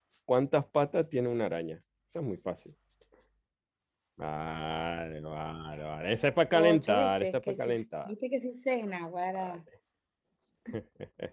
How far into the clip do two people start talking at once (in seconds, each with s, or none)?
6.5 s